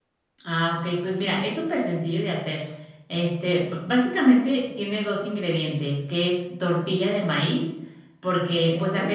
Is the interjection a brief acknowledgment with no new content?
Yes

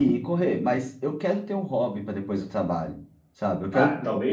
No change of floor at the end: No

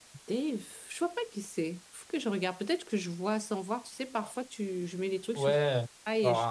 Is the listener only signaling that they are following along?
No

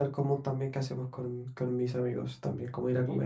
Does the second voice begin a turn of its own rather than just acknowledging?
No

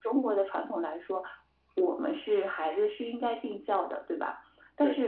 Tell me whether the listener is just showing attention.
Yes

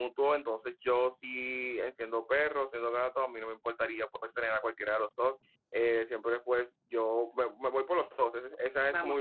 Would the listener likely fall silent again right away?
No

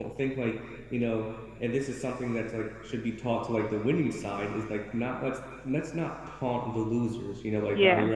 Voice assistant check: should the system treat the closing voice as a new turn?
No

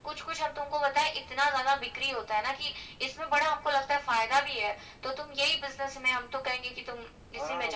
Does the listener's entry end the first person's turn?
Yes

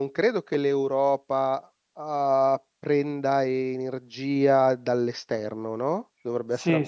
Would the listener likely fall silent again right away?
No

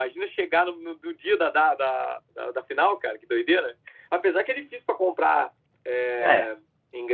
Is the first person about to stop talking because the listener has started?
No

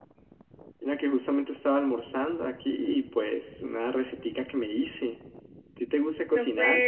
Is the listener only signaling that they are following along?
No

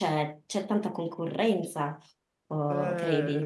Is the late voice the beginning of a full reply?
Yes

